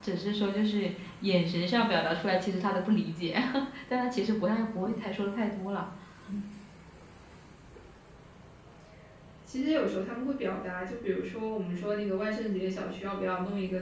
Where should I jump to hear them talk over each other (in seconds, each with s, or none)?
none